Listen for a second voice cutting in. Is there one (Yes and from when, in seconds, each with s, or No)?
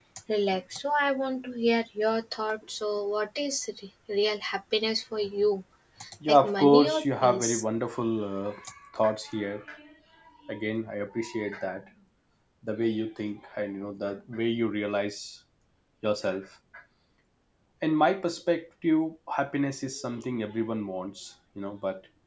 Yes, from 6.3 s